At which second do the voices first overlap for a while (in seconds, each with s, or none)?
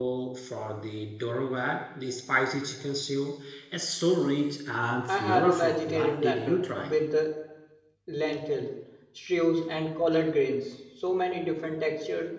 5.1 s